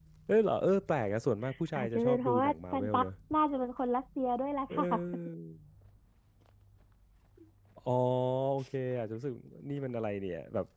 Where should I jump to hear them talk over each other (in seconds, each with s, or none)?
1.8 s